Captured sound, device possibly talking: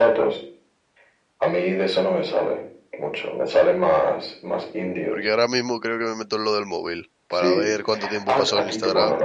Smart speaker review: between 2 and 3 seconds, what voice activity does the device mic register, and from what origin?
echo only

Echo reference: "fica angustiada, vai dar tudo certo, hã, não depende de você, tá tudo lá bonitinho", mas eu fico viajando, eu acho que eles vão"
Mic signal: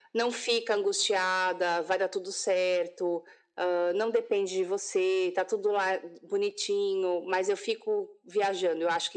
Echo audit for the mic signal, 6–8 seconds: echo only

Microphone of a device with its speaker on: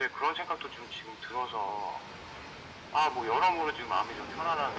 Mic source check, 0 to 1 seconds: echo only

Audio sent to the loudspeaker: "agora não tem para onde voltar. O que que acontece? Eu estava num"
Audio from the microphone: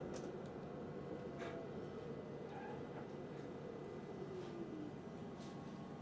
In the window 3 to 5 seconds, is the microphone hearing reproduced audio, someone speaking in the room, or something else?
neither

